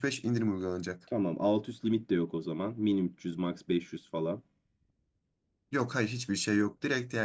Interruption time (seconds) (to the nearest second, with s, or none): none